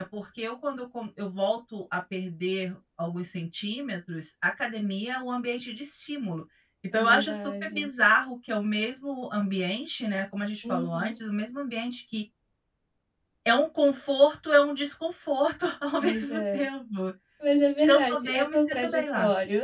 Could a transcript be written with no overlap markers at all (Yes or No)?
No